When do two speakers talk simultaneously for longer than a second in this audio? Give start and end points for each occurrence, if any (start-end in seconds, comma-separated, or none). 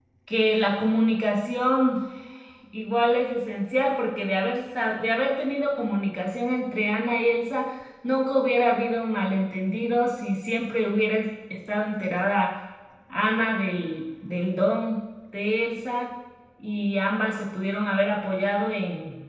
none